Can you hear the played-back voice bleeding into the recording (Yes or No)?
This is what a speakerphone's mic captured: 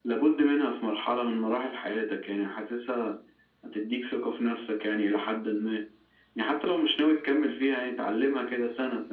Yes